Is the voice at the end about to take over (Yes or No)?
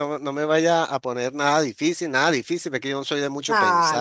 Yes